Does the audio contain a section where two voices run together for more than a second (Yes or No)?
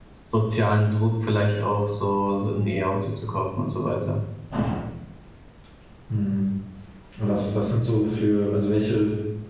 No